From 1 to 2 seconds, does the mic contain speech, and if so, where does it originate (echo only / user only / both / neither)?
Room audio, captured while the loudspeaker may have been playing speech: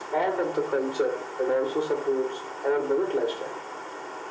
echo only